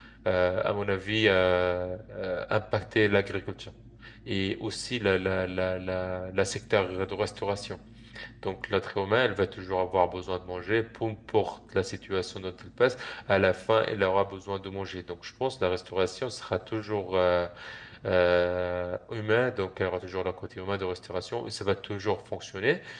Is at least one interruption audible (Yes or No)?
No